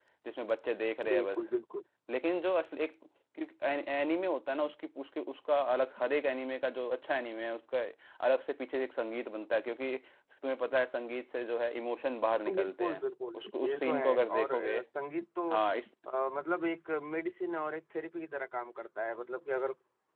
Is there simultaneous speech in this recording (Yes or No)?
Yes